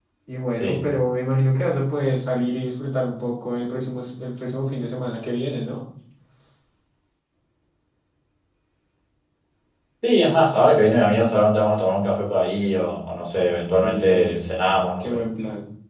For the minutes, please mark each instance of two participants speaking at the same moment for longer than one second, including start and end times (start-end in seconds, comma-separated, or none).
none